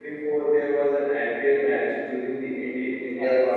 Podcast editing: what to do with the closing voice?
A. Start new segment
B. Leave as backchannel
A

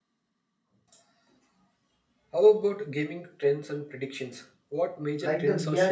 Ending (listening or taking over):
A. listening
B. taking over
B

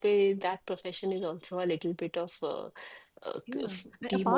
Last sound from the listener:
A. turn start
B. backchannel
A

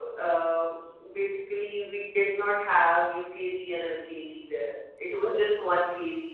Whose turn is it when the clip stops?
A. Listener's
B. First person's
B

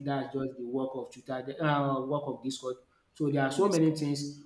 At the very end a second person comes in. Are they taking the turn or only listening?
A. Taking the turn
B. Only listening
B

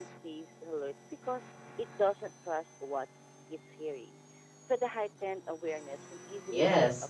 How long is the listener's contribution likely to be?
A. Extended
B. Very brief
A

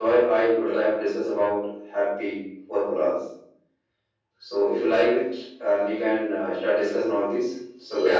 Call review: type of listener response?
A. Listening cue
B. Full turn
B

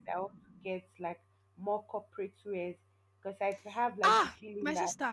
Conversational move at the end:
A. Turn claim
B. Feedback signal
A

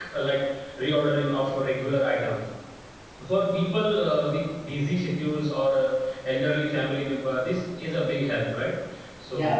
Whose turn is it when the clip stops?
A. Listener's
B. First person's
A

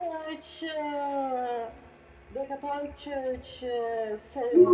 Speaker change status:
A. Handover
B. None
A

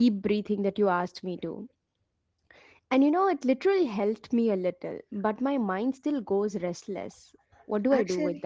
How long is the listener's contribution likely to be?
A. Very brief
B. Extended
B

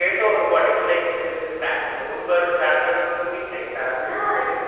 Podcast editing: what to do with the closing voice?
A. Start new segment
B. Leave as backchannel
A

